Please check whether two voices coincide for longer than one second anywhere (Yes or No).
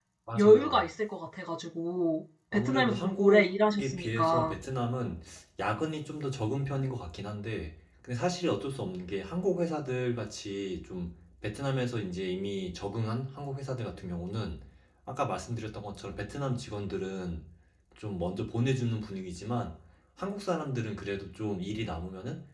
Yes